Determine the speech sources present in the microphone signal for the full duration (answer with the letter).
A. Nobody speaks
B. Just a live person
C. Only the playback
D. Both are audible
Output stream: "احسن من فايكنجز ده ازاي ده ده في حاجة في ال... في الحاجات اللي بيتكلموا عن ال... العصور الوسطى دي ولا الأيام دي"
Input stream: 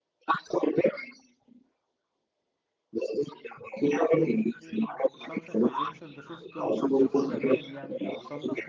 D